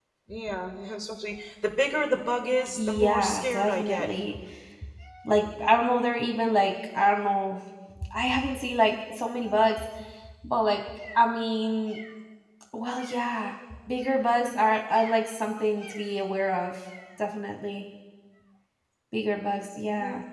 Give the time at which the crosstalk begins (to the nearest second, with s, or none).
3 s